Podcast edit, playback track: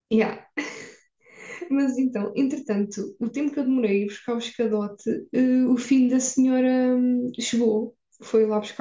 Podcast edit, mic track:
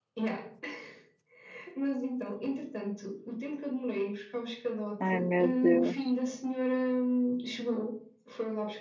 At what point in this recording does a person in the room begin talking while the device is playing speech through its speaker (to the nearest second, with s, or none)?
5 s